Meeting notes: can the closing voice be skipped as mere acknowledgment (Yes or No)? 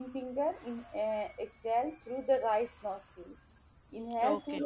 Yes